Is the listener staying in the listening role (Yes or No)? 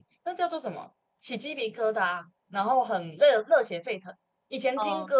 Yes